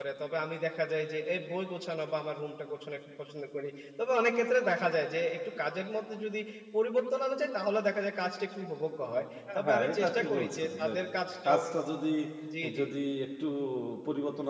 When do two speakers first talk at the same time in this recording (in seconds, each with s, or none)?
9.6 s